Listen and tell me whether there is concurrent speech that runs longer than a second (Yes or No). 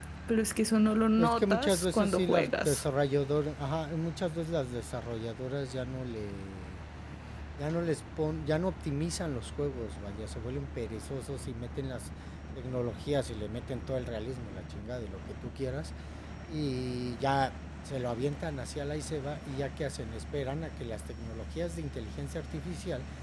Yes